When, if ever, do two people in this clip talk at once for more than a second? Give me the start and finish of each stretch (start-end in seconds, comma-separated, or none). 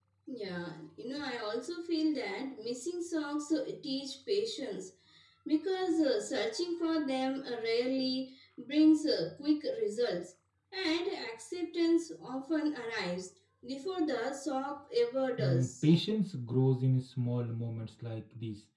none